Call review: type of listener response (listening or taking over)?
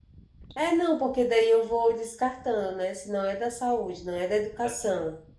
listening